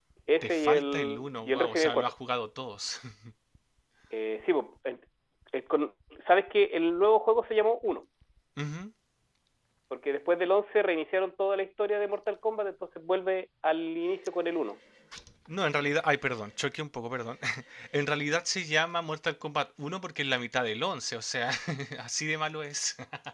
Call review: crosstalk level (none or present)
present